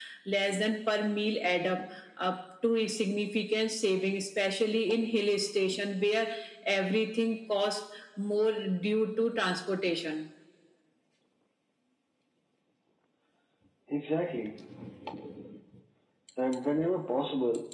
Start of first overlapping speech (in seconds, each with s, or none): none